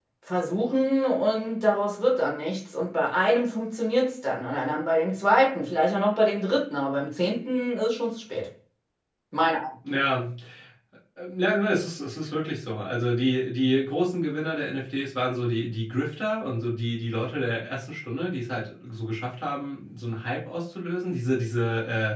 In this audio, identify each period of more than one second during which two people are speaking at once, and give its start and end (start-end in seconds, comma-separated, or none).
none